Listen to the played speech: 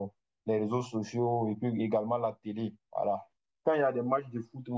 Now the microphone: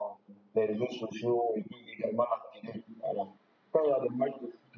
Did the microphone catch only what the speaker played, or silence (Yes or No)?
Yes